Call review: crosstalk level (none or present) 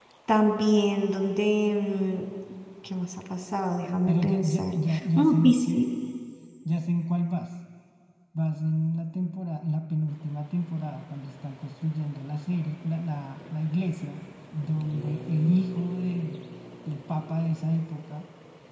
present